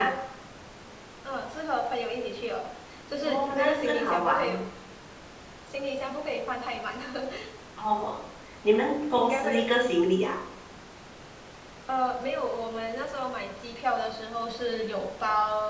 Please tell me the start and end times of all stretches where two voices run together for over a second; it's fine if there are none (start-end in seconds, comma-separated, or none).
3.2-4.6